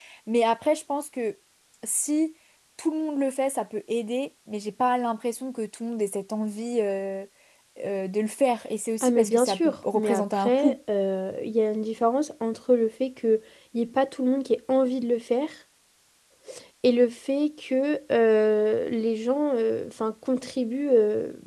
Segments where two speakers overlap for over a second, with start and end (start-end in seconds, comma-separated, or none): 9.0-10.8